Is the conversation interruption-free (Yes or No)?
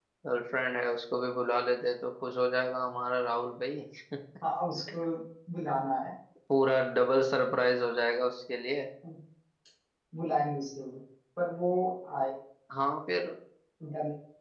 Yes